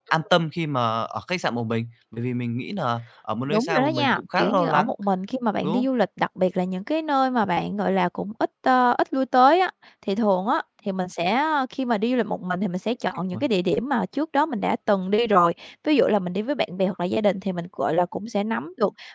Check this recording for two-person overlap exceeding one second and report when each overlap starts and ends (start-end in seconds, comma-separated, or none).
3.5-4.9